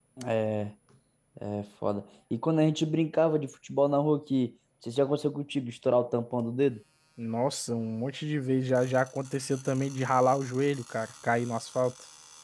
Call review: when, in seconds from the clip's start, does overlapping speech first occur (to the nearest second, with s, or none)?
none